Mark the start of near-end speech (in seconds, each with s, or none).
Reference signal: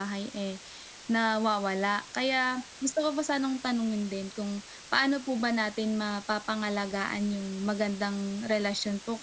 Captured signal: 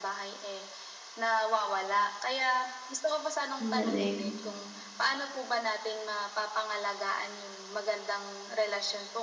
3.6 s